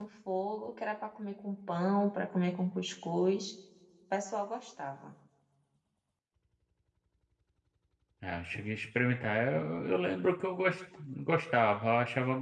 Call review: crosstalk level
none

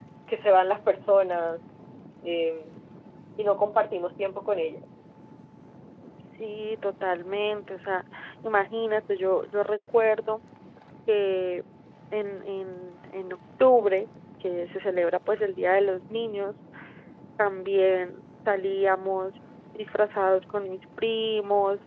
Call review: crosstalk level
none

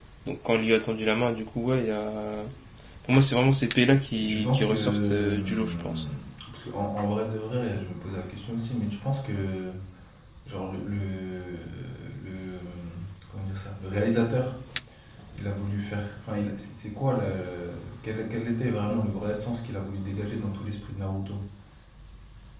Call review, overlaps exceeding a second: present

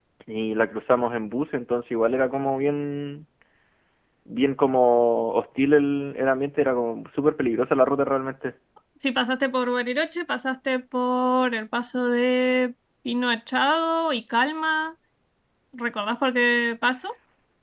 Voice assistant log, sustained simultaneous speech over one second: none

